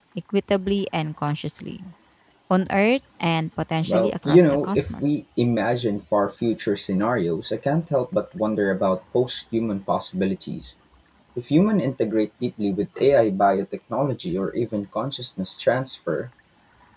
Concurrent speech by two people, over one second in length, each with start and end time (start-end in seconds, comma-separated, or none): 3.9-5.2